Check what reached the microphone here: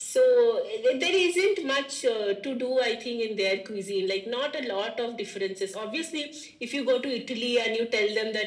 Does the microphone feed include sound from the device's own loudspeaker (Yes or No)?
Yes